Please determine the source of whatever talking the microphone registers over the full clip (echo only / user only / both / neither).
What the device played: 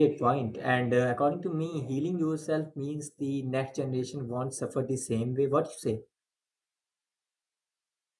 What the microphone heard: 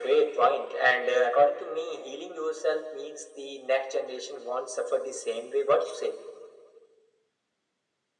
echo only